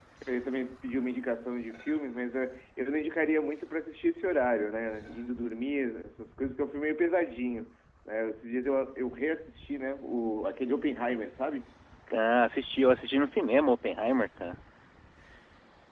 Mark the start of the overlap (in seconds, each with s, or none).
none